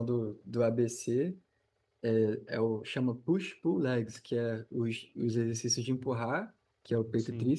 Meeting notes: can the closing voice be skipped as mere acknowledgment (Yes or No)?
Yes